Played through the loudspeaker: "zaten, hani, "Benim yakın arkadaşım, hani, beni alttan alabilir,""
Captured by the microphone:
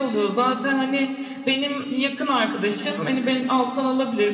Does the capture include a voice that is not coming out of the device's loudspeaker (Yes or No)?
No